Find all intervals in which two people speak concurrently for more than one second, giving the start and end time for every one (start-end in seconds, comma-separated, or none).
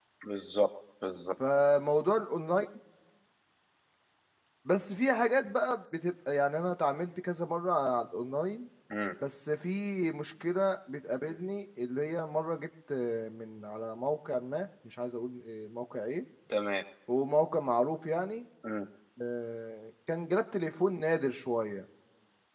none